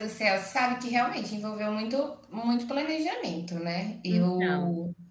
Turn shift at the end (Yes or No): No